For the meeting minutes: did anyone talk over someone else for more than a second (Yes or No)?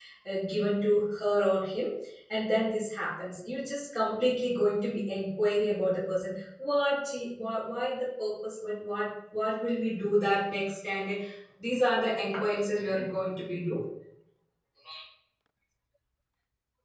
No